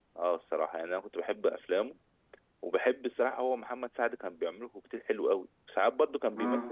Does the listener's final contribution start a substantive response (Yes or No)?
No